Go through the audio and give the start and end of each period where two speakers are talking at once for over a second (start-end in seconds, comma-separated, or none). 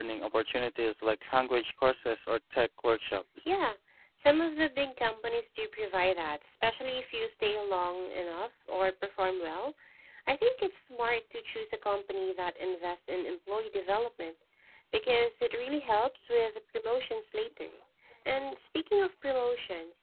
none